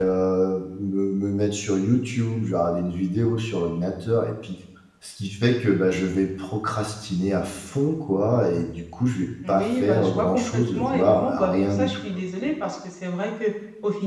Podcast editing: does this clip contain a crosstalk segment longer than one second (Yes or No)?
Yes